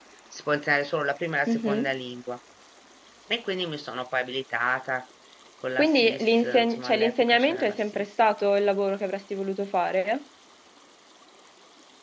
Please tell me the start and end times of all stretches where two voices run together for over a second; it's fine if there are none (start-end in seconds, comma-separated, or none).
5.8-8.1